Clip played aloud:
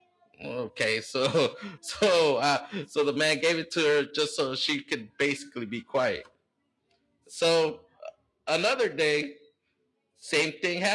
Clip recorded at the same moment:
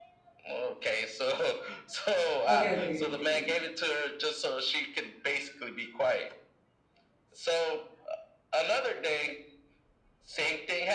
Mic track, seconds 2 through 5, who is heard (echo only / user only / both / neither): both